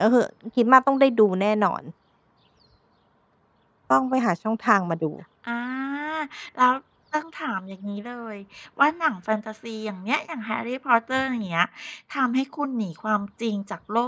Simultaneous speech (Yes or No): No